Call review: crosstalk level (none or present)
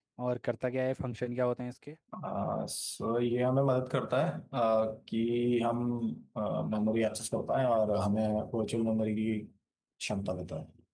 none